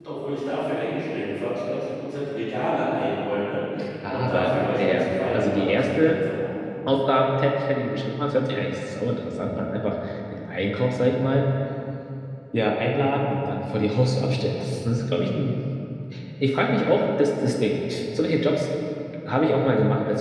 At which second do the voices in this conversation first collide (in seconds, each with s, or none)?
4.1 s